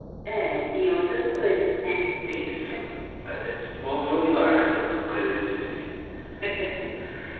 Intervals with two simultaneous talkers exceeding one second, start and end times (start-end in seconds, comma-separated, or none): none